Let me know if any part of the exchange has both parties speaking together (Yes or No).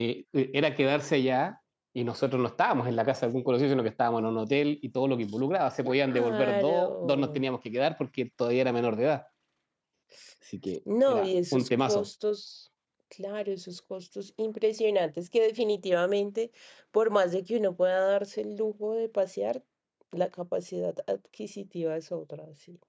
Yes